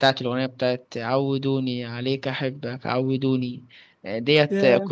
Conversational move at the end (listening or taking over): listening